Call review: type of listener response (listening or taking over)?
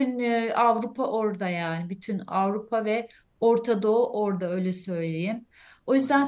listening